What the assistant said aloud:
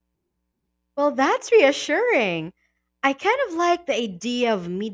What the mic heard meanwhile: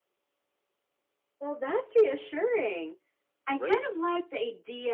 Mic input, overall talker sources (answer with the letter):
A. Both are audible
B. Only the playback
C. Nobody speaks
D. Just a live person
A